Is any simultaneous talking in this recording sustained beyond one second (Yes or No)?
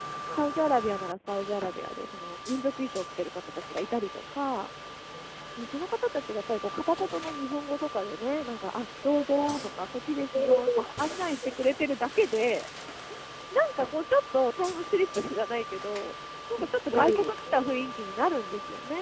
Yes